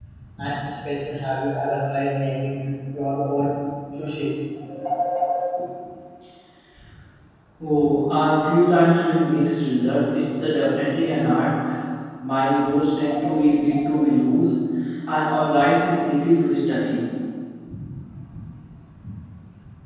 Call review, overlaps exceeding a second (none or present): none